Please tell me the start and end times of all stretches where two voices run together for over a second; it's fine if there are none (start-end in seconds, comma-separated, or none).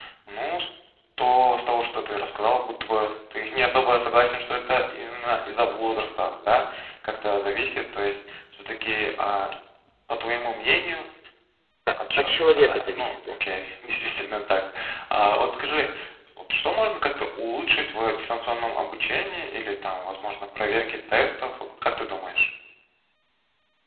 12.2-13.4